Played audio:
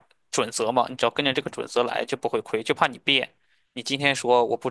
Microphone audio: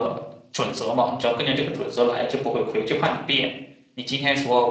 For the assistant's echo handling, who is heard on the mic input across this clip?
echo only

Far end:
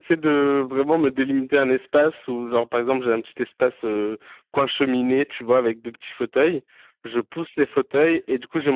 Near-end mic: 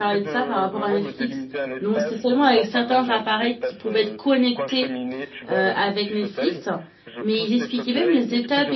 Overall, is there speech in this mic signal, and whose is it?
both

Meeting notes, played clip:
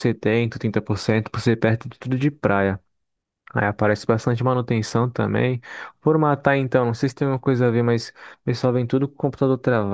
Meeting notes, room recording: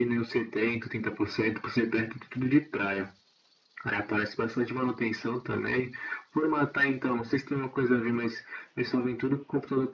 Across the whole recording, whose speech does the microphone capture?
echo only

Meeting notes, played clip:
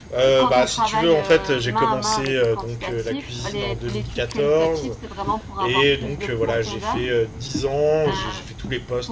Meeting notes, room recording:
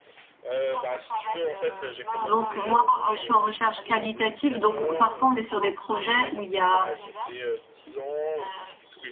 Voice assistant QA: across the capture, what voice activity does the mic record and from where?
both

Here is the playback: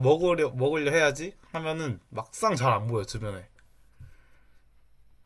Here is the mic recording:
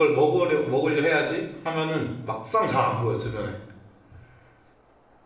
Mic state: echo only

